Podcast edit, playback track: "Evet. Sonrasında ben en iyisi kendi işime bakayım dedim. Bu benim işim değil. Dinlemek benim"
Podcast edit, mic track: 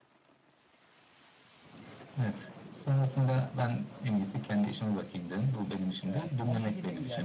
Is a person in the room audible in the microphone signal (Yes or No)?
Yes